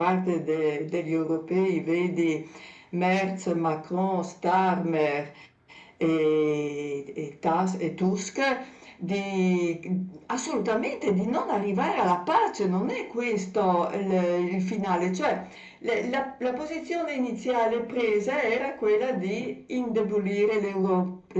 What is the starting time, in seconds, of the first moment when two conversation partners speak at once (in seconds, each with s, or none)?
none